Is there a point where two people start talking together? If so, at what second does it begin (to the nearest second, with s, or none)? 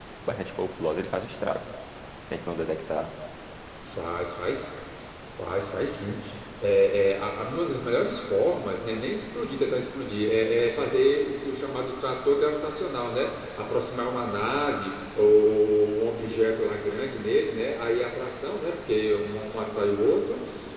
none